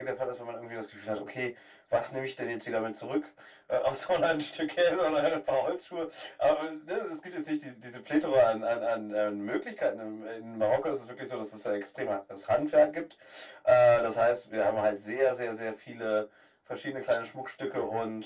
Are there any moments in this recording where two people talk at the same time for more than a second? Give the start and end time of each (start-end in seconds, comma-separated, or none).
none